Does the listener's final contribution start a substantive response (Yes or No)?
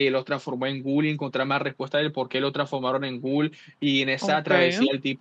No